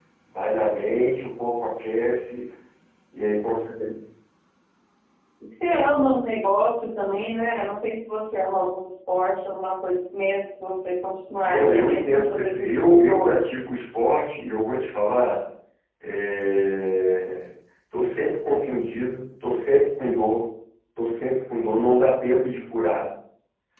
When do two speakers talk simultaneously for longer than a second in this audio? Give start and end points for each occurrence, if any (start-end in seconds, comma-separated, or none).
11.4-13.4